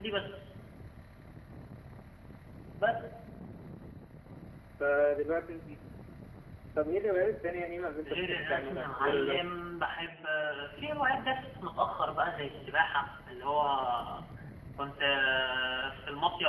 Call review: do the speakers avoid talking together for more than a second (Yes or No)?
No